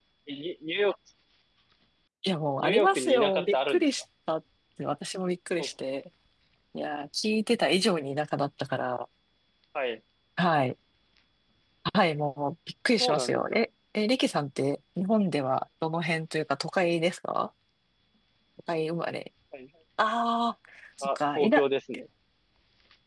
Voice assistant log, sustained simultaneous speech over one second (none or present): present